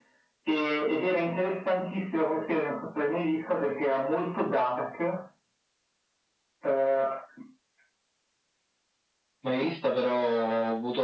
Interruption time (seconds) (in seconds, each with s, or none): none